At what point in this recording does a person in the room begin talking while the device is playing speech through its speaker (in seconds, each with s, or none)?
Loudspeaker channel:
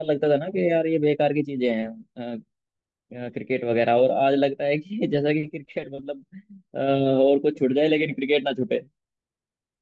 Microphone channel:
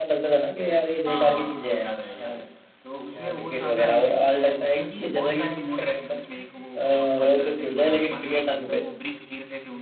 1.1 s